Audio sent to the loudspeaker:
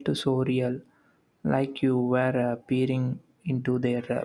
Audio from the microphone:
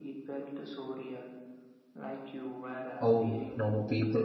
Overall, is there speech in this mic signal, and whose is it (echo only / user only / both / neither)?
both